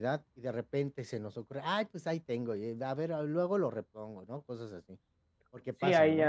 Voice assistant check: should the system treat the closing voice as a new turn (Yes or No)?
Yes